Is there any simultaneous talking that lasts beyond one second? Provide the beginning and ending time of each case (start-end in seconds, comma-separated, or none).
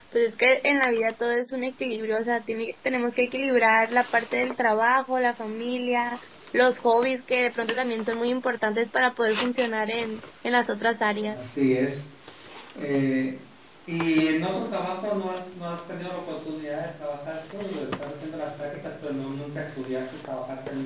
none